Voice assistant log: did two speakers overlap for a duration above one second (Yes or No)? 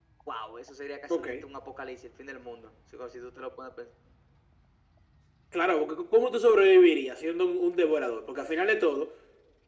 No